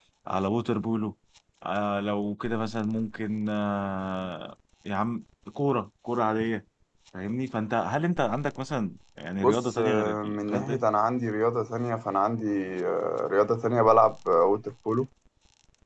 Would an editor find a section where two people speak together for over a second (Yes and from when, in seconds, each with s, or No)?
Yes, from 9.4 s